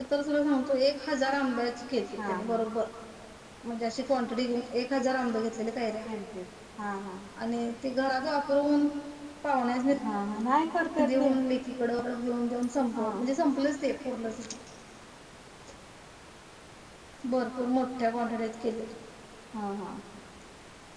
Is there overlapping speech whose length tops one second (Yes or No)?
No